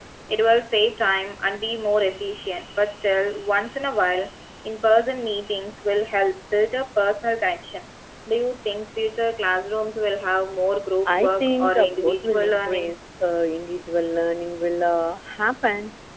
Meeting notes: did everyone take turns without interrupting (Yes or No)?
No